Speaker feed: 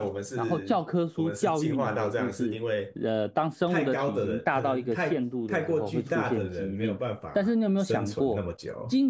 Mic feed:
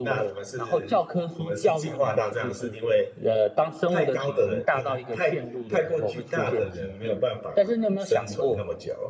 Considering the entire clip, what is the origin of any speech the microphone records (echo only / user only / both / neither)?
echo only